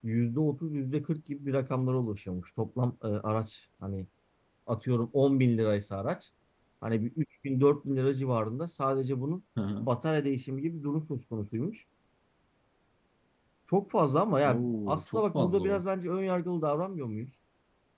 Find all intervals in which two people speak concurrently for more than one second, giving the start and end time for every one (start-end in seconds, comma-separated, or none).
14.4-15.8